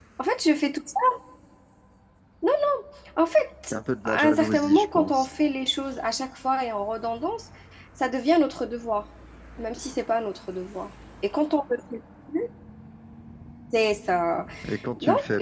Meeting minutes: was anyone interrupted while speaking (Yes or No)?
Yes